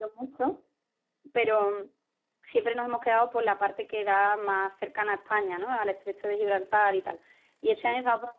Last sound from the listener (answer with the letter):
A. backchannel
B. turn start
A